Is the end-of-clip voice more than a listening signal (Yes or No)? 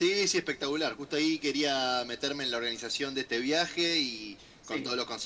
No